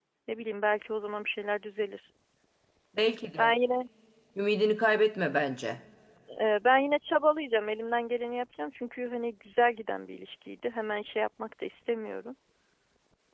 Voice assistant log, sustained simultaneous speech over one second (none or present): none